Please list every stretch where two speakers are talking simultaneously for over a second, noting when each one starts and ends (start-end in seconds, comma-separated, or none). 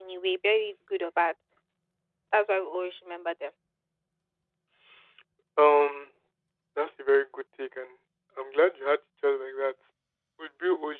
none